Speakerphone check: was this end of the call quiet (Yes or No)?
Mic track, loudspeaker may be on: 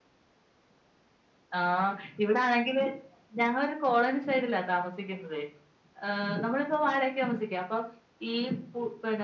Yes